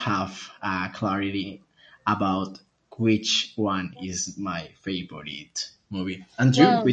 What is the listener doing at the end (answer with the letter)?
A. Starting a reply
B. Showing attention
A